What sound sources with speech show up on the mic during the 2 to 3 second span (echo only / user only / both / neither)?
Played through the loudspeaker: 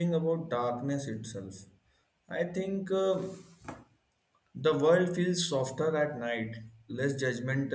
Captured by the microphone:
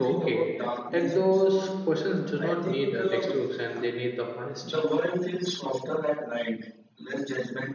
both